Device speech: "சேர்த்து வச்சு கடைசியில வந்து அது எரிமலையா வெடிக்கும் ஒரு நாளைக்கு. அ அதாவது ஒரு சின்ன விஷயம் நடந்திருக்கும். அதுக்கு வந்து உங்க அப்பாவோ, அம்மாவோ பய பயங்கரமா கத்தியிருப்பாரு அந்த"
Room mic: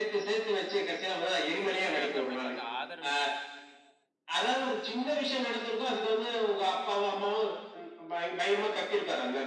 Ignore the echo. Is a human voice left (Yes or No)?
Yes